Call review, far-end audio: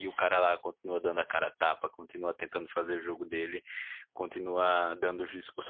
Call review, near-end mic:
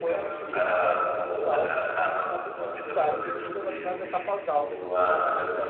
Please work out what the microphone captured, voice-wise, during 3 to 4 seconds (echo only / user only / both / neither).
both